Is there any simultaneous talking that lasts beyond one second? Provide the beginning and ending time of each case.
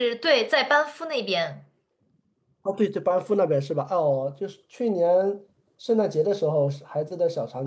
none

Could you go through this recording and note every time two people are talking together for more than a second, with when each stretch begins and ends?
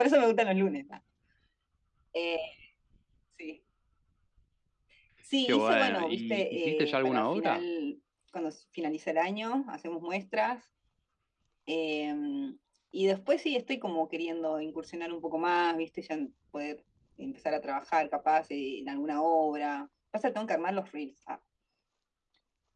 5.4-7.6

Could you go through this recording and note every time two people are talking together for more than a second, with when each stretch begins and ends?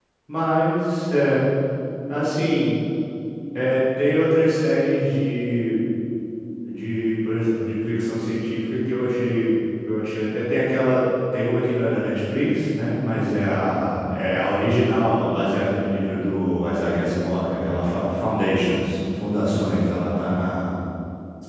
none

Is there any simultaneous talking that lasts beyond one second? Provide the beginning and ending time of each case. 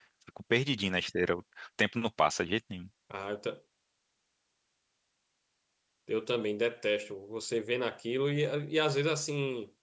none

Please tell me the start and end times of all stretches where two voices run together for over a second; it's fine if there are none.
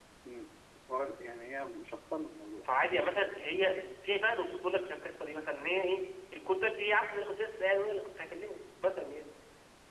none

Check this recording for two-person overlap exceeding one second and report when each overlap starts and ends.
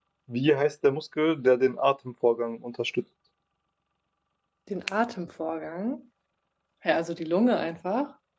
none

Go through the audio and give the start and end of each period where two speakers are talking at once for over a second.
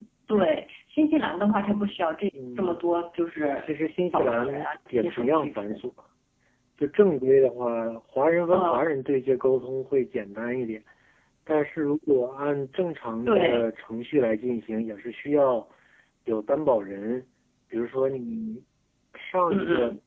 4.1-5.8

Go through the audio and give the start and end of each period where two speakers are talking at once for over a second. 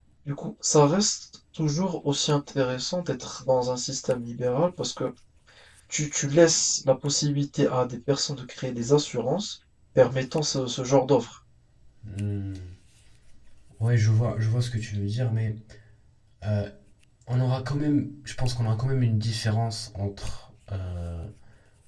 none

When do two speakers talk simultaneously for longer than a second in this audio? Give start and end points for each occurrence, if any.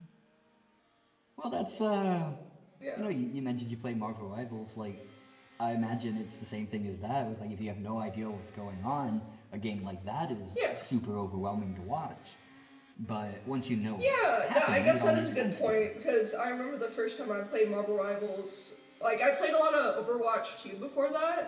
14.0-15.9

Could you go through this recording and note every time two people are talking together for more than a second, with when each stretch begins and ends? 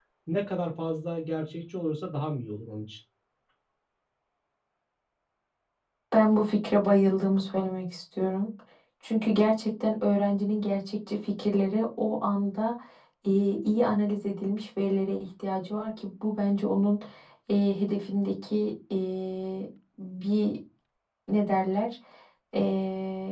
none

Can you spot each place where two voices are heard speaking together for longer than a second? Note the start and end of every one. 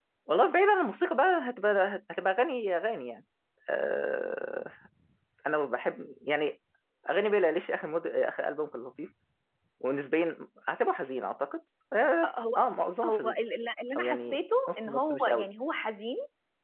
14.0-15.5

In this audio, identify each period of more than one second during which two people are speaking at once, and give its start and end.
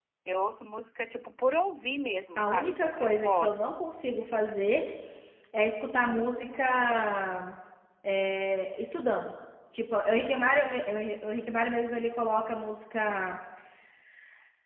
2.4-3.6

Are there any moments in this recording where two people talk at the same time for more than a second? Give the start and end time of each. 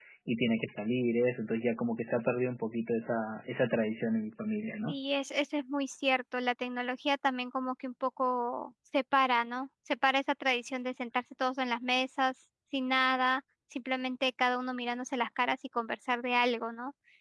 none

